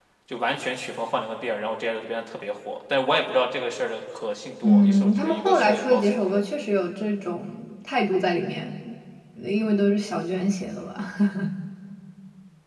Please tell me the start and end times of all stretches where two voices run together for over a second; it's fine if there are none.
4.6-6.4

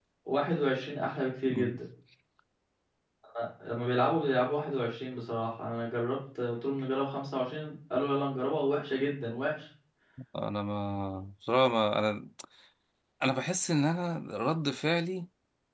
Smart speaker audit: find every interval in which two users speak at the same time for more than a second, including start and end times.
none

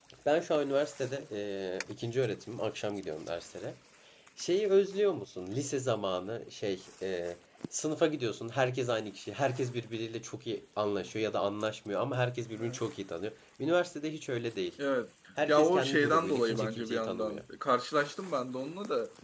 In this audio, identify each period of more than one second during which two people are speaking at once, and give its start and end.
15.4-17.4

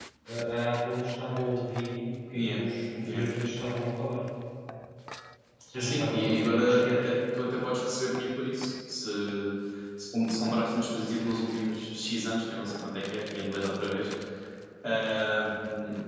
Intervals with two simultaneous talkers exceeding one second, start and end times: 5.8-7.0

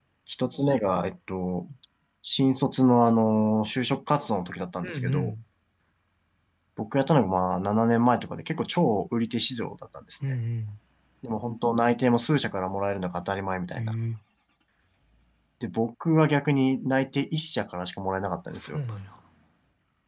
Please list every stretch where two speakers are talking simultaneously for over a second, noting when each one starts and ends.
none

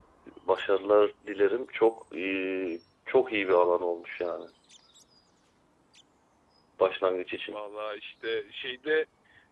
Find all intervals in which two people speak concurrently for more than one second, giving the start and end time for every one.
none

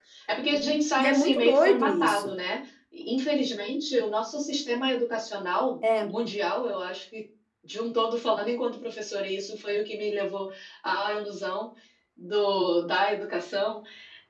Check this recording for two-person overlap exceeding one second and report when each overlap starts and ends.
0.5-2.4

